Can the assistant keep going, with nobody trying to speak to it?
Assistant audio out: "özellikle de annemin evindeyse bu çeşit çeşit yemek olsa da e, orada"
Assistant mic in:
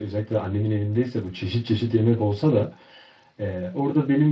Yes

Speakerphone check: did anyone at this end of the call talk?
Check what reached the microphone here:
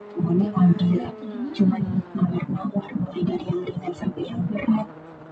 Yes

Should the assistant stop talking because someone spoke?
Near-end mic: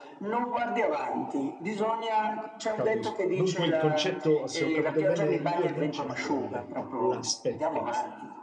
Yes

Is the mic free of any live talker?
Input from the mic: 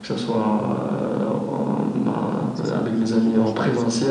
No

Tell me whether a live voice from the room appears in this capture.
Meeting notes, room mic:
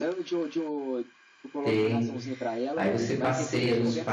Yes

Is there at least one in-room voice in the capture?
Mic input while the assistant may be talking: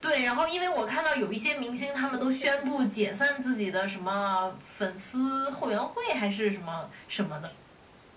Yes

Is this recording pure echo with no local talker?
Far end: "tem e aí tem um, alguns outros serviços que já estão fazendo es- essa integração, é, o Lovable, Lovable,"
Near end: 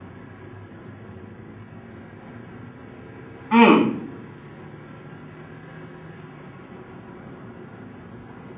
No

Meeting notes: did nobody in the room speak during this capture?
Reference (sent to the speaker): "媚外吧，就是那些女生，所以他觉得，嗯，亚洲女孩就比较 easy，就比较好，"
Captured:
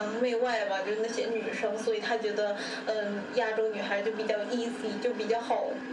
Yes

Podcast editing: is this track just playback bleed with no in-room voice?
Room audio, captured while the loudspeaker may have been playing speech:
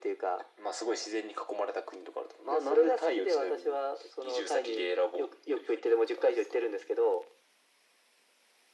Yes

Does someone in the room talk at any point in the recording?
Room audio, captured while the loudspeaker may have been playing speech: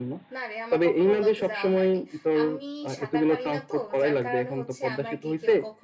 Yes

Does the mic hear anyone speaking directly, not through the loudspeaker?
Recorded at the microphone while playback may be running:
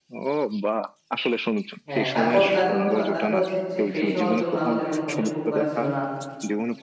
Yes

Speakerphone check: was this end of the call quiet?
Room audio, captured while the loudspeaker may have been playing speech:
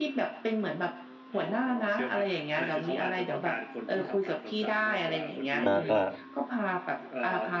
No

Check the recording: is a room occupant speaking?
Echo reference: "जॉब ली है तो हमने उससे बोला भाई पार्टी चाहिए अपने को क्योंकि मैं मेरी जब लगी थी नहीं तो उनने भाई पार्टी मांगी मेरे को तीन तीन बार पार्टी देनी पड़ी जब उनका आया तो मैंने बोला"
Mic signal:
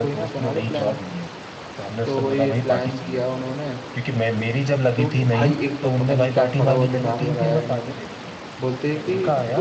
Yes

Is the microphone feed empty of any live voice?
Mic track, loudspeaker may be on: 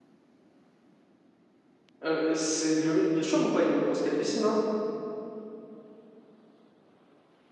No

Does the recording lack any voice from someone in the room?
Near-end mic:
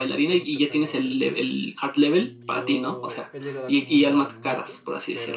No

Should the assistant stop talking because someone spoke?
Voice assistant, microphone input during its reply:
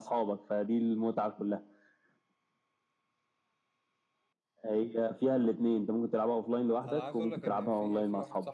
Yes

